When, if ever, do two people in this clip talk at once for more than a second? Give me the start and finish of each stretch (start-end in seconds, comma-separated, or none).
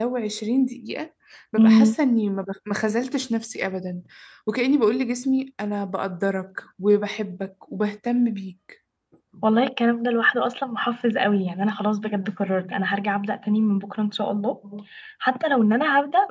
none